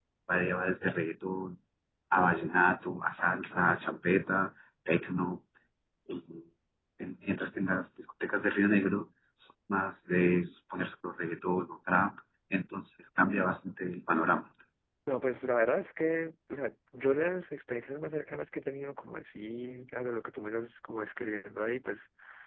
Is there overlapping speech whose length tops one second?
No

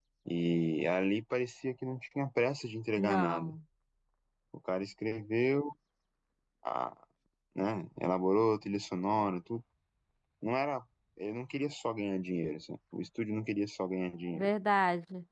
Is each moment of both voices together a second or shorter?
Yes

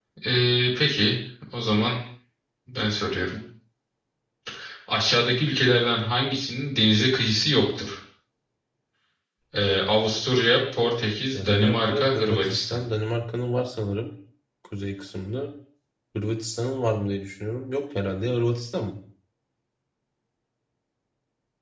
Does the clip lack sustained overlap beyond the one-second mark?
No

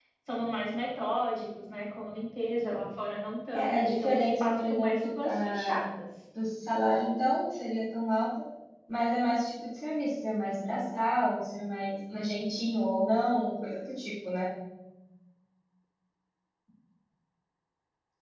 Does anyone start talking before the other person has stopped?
Yes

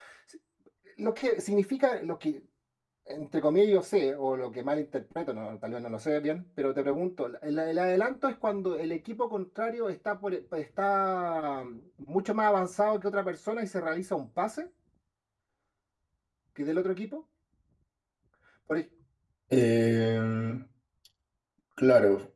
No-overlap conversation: Yes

